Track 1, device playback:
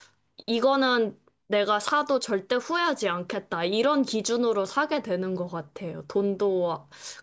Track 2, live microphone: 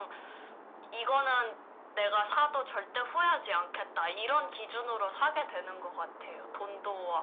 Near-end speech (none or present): none